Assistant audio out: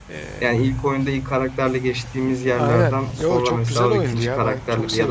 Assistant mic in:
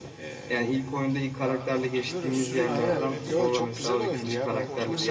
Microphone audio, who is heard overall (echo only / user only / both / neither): both